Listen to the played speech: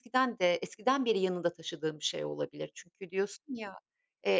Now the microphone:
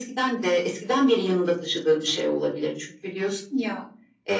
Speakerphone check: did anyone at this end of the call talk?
No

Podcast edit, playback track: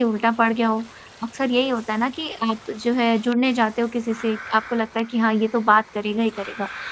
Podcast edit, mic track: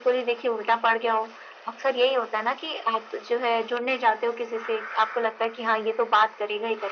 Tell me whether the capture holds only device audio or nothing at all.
Yes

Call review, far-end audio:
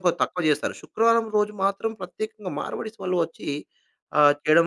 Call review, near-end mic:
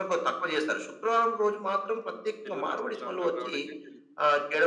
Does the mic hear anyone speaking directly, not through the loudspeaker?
Yes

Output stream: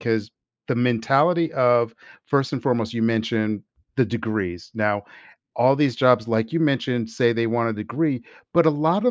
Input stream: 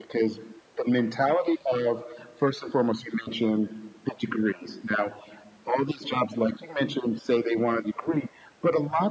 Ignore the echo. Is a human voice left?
No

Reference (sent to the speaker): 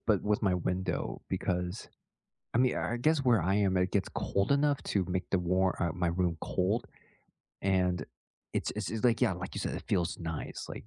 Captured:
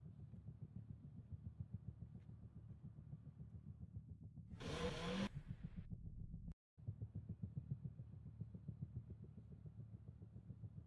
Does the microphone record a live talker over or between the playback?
No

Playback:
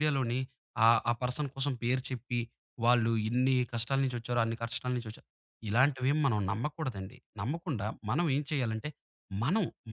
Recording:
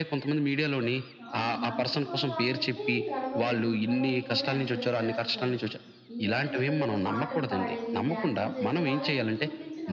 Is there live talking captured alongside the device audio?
Yes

